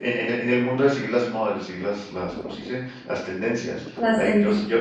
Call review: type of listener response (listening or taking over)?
listening